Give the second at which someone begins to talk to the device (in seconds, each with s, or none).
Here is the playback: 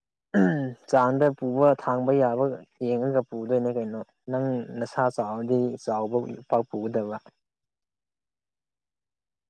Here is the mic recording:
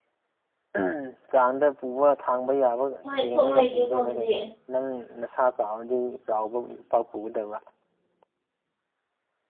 3.0 s